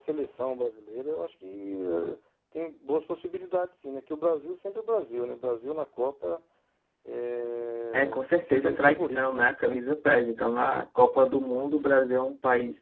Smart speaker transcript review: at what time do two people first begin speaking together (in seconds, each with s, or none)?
7.9 s